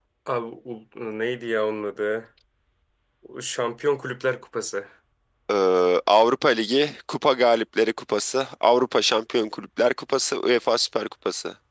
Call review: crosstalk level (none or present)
none